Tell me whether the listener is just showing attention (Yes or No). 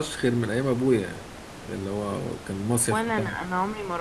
No